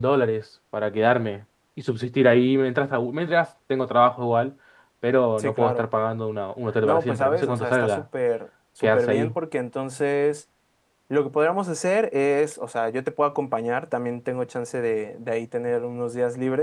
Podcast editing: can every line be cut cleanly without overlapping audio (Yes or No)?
No